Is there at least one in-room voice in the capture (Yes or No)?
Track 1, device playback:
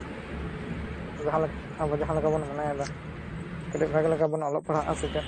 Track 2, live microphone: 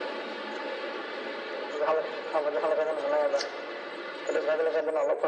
No